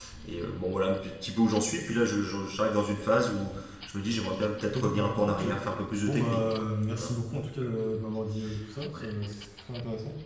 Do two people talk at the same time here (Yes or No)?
Yes